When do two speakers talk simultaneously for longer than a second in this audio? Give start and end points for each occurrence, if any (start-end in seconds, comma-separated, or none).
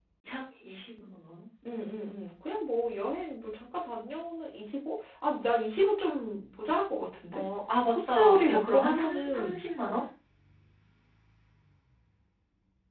7.9-9.6